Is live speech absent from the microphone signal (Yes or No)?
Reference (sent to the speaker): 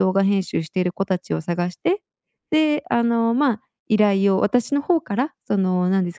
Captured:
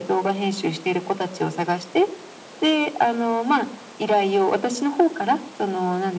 Yes